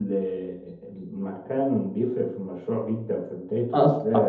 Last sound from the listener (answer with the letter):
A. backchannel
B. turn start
B